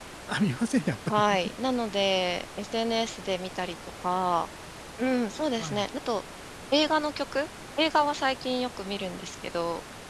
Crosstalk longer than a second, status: none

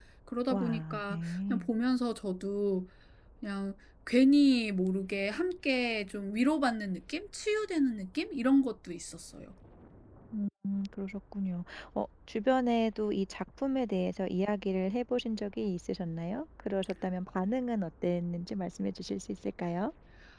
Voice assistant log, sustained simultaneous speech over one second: present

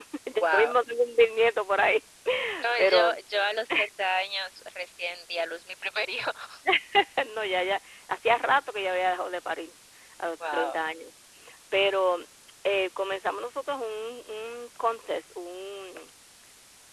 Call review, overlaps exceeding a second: none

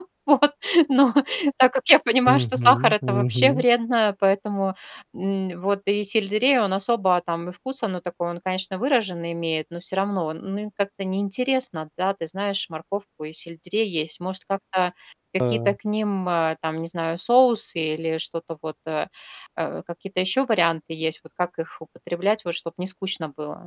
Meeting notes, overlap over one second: present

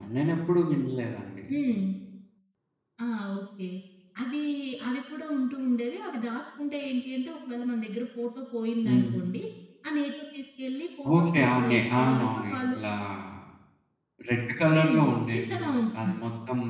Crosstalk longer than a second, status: present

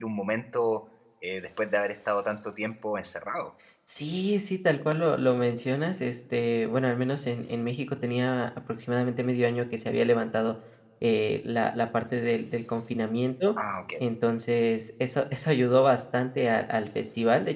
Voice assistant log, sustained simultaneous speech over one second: none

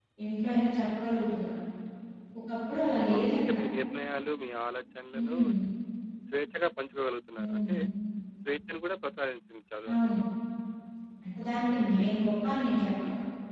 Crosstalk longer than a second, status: none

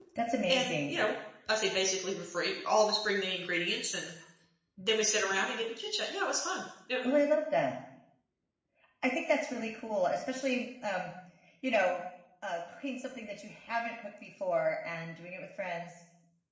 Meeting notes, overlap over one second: none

